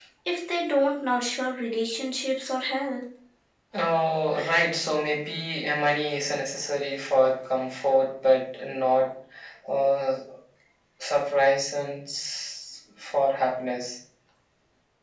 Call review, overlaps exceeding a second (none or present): none